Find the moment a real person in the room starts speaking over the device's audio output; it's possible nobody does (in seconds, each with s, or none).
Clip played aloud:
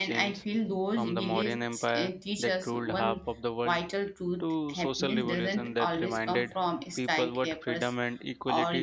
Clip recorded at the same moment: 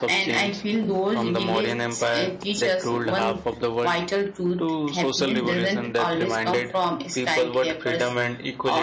none